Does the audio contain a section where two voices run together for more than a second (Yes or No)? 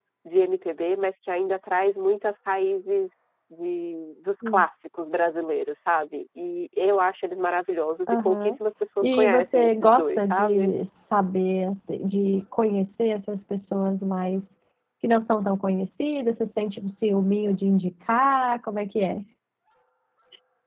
Yes